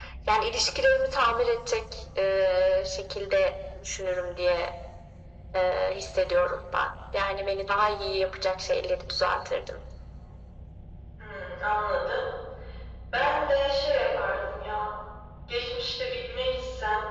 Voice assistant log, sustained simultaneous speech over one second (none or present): none